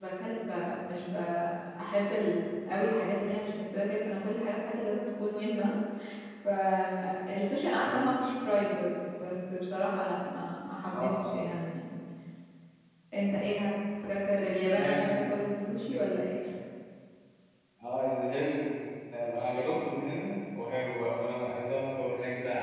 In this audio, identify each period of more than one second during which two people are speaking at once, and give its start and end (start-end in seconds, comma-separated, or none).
14.7-16.0